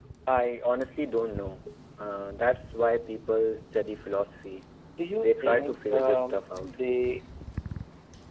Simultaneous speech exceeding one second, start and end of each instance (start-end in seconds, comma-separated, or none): 5.2-6.8